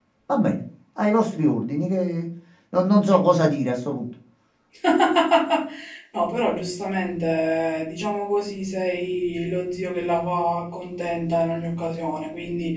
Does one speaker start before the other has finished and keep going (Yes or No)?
No